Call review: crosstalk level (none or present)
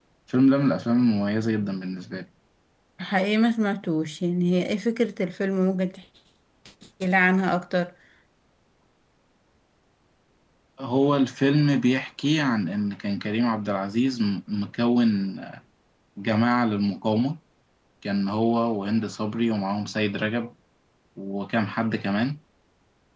none